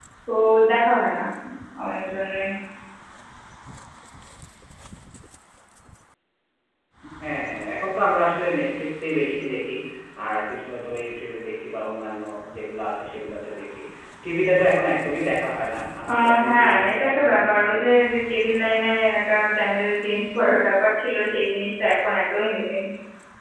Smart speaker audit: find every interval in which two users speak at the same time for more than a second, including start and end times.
16.2-17.8

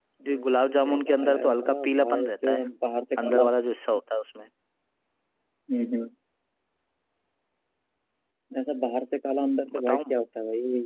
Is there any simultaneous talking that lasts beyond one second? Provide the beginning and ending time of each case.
0.8-2.6

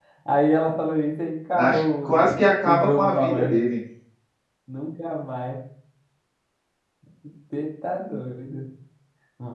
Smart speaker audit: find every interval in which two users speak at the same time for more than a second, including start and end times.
1.6-3.6

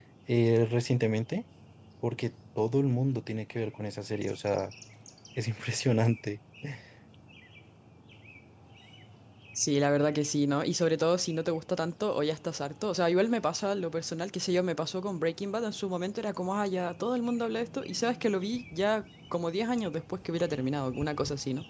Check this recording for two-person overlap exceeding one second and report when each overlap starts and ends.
none

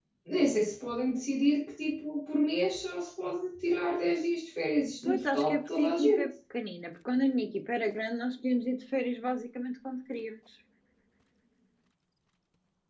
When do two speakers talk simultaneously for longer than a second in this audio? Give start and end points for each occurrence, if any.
5.0-6.3

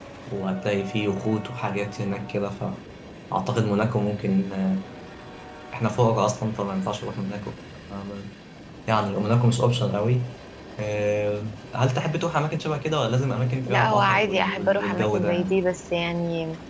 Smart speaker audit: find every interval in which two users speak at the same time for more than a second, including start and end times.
13.7-15.6

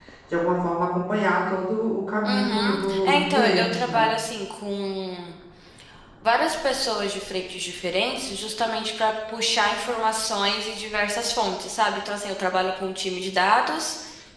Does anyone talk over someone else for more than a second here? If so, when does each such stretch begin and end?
2.2-4.1

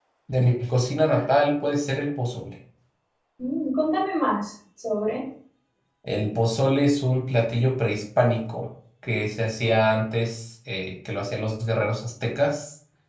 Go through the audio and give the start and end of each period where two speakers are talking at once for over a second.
none

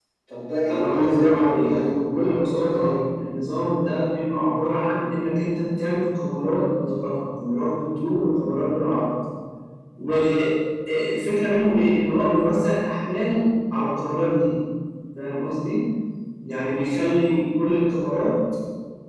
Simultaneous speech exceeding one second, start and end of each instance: 0.7-2.9

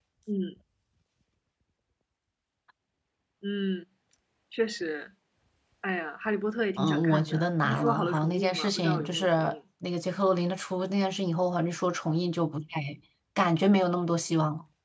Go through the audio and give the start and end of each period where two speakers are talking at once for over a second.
6.8-9.2

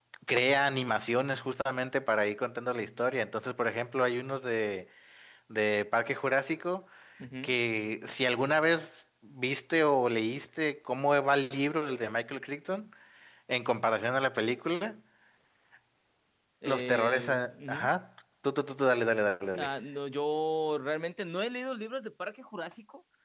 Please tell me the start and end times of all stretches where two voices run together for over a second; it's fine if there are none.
16.6-17.9

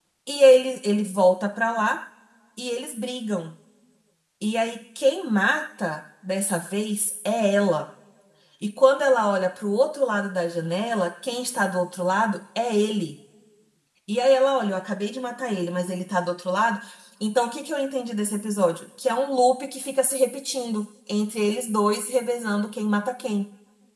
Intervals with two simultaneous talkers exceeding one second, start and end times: none

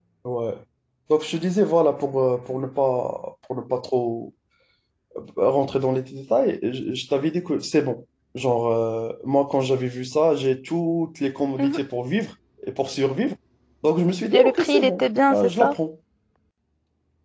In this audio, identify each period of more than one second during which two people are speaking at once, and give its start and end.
14.3-15.8

